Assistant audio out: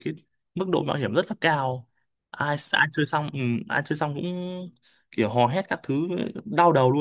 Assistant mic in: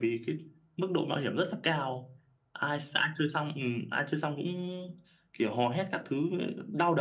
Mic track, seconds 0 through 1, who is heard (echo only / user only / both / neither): echo only